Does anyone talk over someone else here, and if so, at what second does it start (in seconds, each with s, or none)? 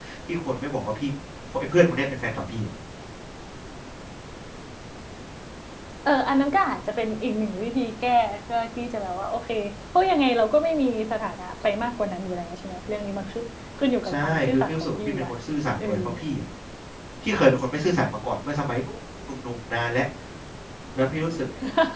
14.1 s